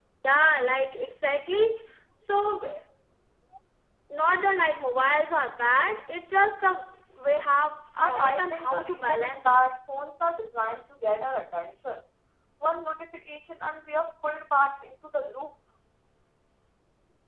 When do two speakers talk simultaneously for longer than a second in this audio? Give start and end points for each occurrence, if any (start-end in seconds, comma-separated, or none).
8.0-9.6